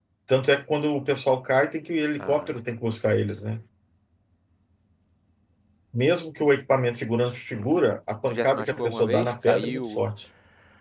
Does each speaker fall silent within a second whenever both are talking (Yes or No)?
No